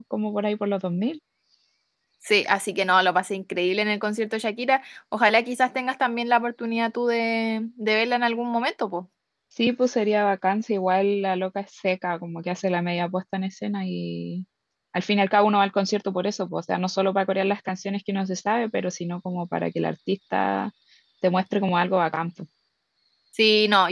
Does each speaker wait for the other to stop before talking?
Yes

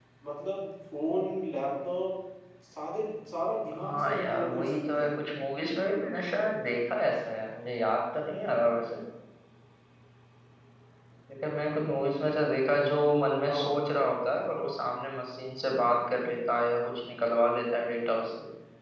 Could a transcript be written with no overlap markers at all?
No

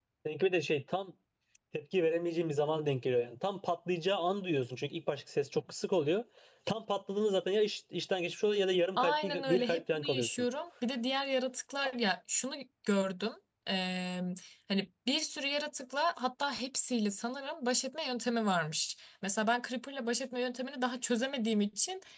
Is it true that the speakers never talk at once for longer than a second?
No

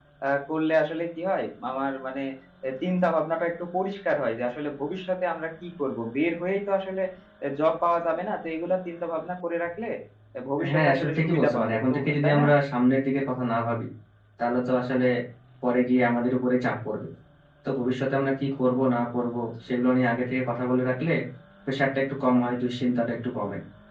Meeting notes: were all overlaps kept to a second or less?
No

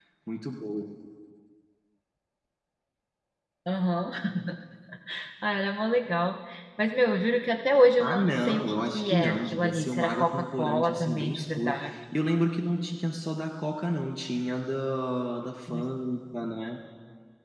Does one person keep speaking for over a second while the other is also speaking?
Yes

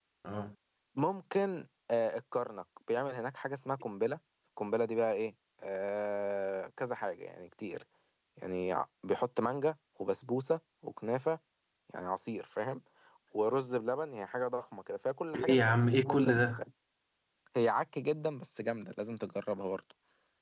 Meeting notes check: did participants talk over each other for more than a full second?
Yes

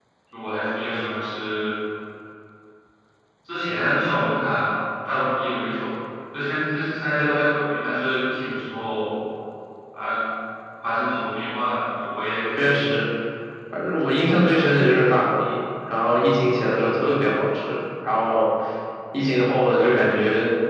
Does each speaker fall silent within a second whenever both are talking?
Yes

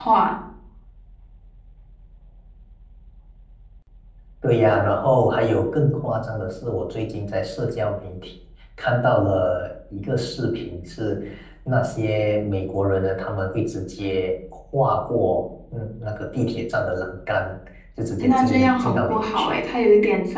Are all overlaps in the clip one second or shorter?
No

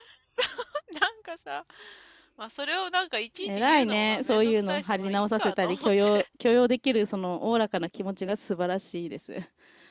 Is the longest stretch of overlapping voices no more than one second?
No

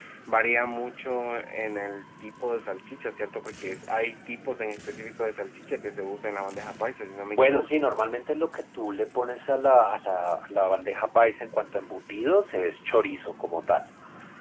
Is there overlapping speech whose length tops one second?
No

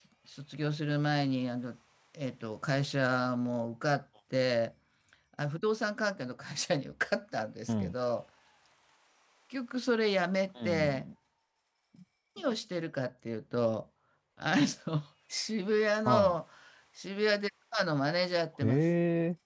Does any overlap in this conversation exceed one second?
No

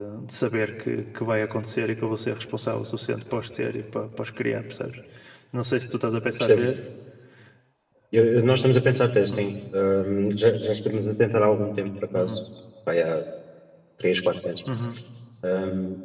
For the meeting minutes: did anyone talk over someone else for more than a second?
No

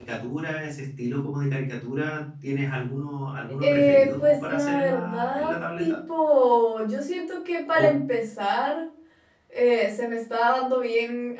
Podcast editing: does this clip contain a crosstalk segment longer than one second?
Yes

